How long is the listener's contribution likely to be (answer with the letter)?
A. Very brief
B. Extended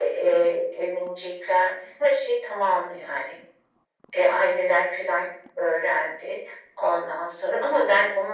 A